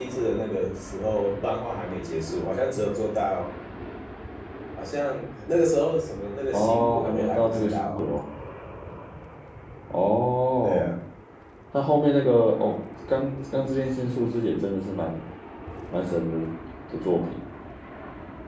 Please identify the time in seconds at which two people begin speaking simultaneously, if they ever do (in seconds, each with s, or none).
6.5 s